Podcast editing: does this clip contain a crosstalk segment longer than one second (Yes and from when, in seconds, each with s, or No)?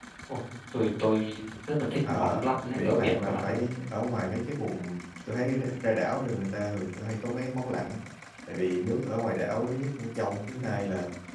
Yes, from 2.0 s